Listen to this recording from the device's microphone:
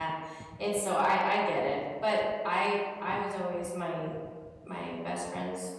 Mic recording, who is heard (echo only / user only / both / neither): user only